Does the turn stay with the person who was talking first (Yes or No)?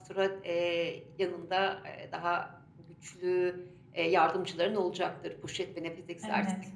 No